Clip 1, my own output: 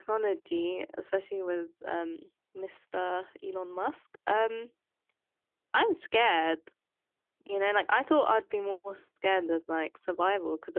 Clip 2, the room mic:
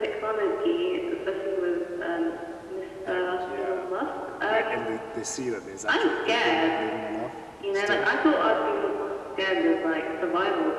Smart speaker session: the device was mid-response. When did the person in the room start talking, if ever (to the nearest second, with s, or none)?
3 s